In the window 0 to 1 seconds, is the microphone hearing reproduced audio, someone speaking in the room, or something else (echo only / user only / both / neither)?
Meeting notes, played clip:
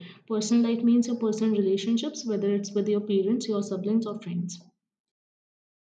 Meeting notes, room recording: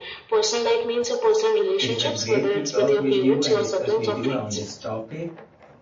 echo only